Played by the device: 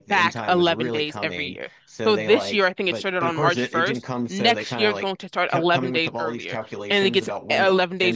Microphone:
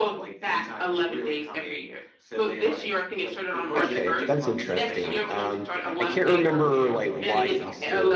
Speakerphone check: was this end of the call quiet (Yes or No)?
No